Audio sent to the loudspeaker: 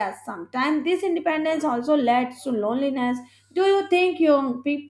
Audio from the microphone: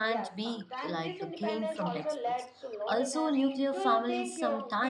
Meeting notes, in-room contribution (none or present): present